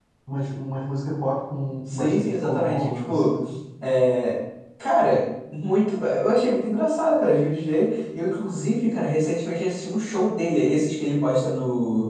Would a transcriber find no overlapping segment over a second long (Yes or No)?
No